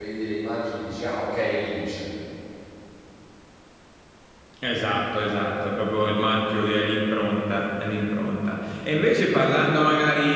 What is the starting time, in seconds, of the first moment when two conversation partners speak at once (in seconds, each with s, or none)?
none